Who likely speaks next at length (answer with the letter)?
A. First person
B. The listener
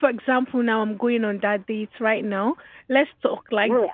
B